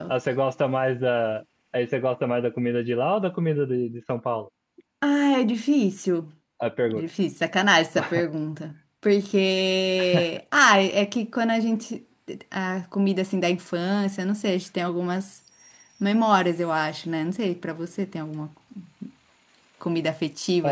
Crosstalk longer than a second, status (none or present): none